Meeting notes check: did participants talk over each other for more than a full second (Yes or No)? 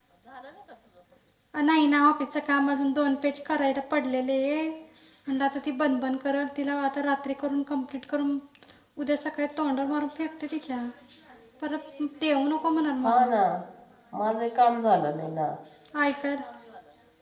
No